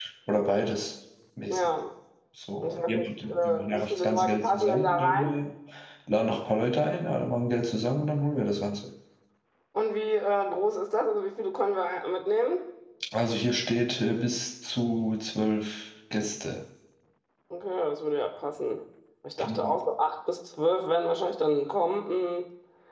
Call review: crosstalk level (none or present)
present